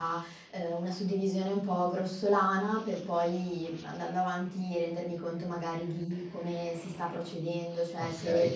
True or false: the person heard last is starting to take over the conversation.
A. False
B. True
A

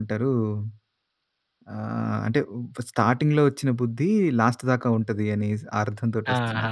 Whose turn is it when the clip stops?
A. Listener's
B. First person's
A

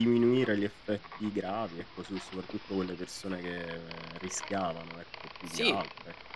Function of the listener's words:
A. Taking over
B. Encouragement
A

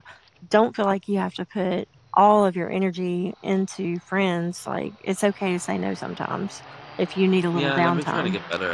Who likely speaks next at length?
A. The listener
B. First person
A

